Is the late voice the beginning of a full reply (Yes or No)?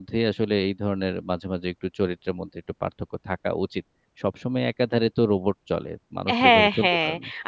Yes